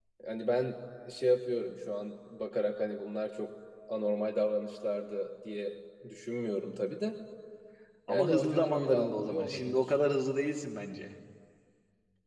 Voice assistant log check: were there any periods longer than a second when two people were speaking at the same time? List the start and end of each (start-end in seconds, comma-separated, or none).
8.1-9.9